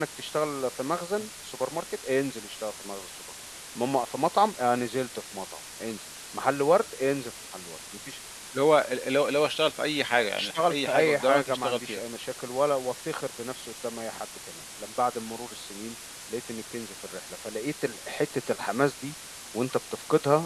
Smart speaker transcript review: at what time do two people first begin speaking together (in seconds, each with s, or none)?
10.1 s